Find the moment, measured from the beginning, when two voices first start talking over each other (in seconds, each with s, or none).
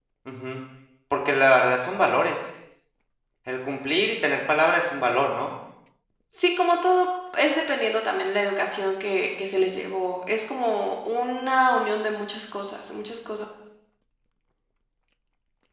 none